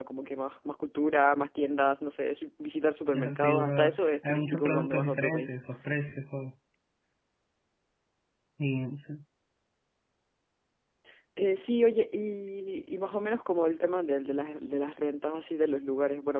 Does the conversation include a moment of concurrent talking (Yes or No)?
Yes